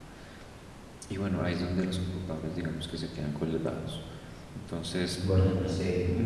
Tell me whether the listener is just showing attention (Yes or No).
Yes